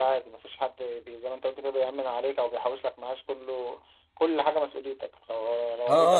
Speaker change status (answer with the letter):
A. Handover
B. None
A